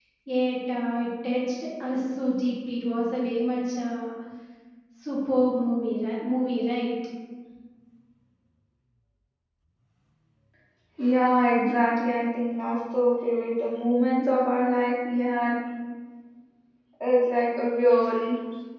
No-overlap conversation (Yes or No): Yes